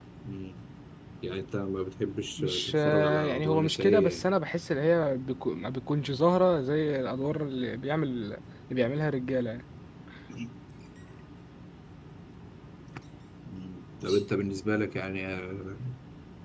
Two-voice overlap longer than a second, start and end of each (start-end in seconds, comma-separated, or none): 2.4-4.2